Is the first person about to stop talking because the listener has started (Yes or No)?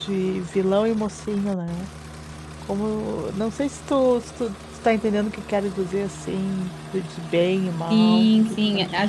Yes